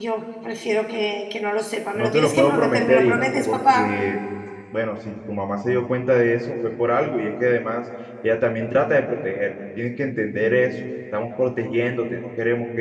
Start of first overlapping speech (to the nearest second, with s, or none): 2 s